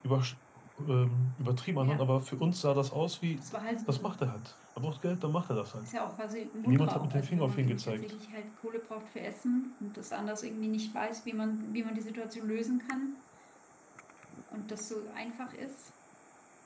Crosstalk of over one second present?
Yes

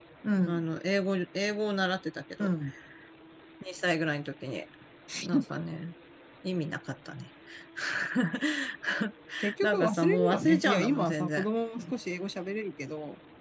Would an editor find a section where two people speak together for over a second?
Yes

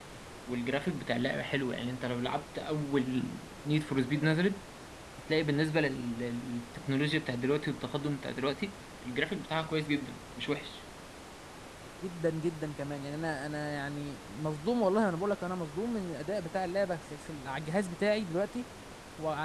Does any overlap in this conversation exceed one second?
No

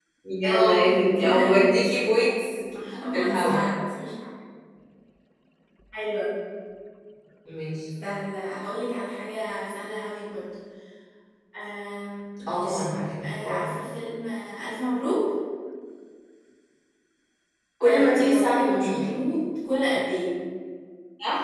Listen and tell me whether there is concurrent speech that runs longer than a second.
Yes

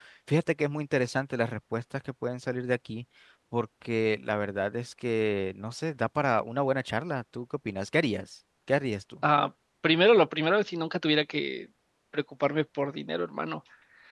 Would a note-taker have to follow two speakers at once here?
No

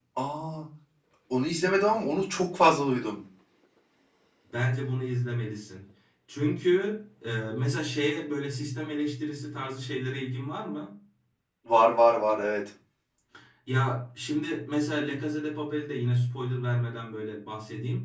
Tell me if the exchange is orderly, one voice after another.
Yes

